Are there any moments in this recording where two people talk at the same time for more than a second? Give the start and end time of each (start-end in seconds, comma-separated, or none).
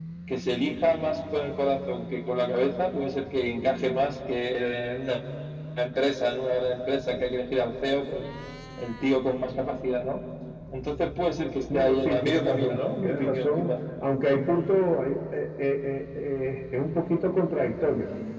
11.7-13.7